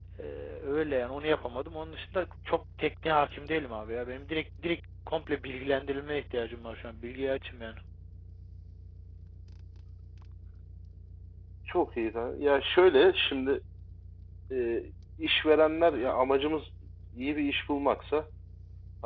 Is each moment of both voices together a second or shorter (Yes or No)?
Yes